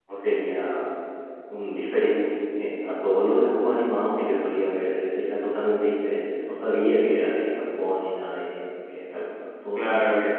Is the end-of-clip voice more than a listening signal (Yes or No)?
Yes